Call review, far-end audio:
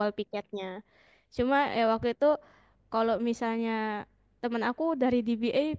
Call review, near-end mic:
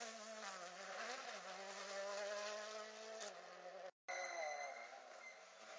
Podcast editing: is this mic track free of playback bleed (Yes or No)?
Yes